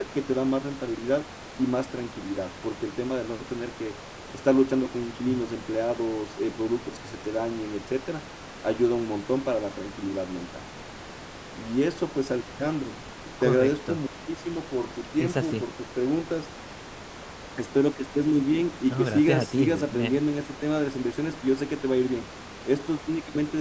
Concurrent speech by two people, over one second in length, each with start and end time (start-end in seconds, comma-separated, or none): 18.9-20.2